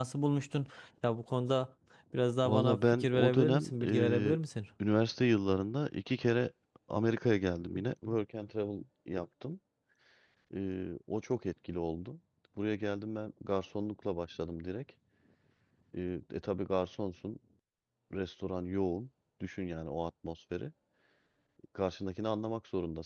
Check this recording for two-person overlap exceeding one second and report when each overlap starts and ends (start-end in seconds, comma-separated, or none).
2.4-4.4